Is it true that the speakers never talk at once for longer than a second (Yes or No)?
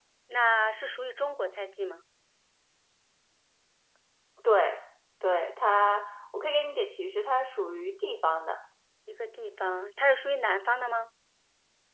Yes